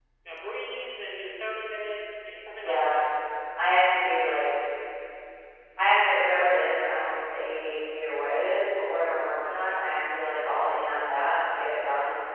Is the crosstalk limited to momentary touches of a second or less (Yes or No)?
Yes